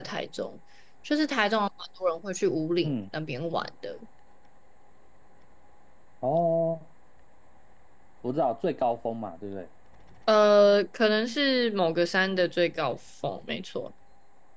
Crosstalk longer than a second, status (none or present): none